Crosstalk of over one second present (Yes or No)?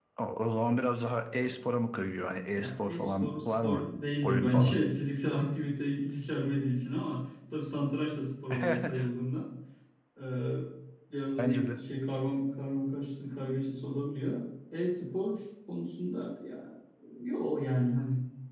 Yes